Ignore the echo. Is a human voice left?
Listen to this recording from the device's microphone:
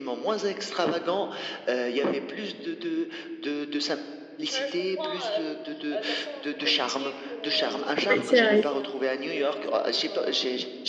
Yes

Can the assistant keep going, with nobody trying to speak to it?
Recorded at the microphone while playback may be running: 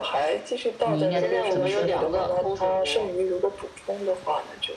No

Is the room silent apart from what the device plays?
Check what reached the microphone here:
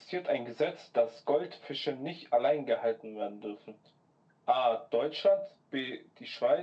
Yes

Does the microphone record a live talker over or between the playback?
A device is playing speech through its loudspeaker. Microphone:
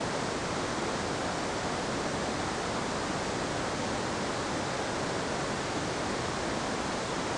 No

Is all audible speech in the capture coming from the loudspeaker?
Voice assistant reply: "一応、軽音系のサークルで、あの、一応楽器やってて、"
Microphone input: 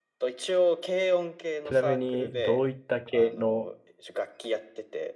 No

